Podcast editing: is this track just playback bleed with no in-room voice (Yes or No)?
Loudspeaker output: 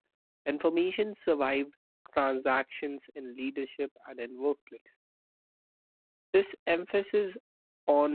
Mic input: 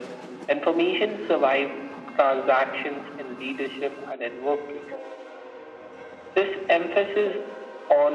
Yes